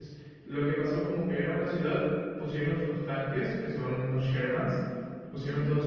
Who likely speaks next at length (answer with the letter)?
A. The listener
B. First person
B